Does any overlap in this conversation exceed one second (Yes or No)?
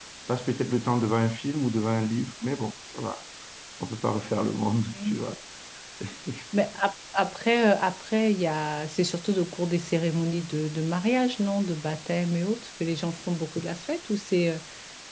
No